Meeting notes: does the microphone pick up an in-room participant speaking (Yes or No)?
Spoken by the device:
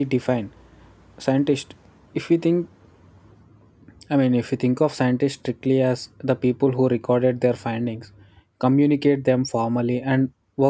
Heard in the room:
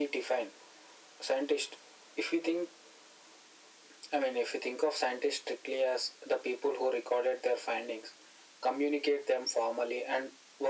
No